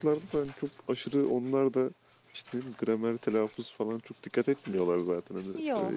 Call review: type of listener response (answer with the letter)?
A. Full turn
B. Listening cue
B